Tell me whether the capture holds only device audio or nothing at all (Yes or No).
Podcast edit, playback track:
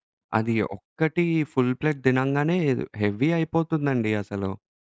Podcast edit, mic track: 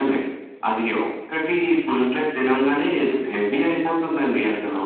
Yes